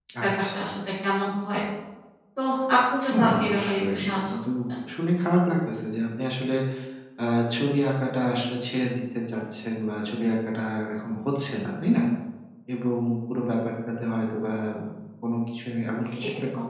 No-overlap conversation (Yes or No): No